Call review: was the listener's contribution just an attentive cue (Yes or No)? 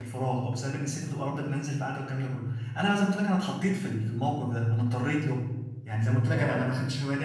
Yes